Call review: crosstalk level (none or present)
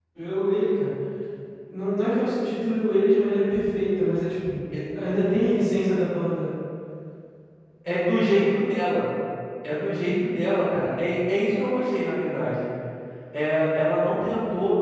none